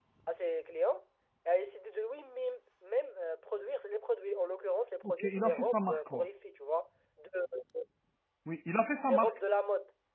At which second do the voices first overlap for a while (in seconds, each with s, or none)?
5.0 s